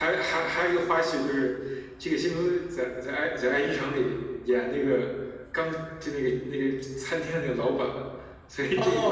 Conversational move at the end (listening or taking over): taking over